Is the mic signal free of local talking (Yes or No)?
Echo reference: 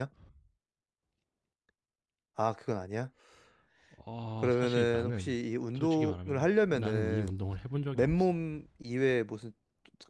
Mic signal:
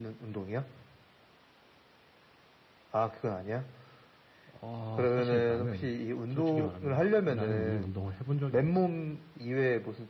Yes